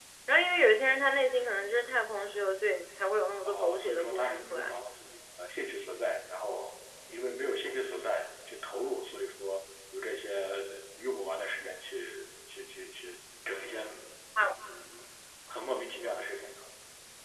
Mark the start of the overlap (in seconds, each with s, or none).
3.5 s